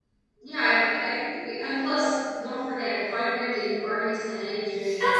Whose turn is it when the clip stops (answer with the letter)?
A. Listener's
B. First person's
A